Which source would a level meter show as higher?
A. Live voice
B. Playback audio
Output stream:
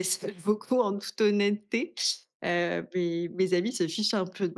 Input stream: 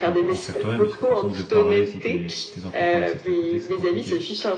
B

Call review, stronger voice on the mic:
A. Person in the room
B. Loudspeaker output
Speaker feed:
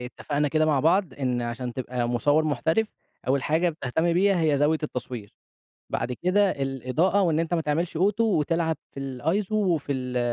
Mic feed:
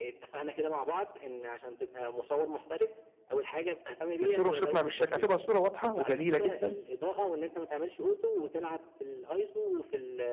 A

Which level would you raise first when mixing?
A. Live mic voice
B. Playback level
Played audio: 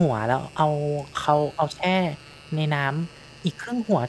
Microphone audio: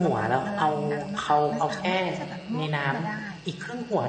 A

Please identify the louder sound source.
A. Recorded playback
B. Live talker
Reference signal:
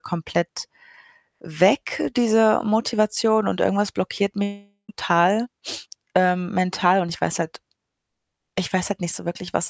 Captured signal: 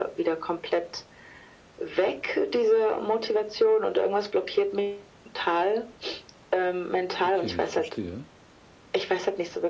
A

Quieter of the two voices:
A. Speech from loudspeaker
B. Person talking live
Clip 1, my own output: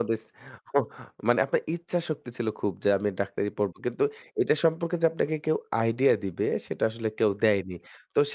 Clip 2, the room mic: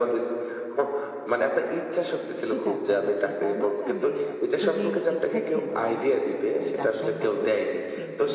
B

